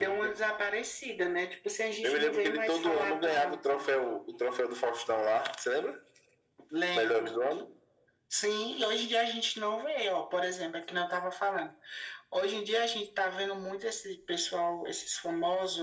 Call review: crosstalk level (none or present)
present